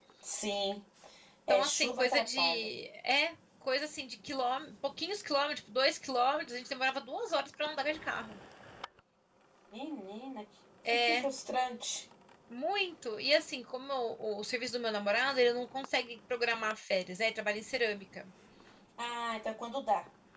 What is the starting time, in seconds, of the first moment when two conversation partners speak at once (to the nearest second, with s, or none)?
1 s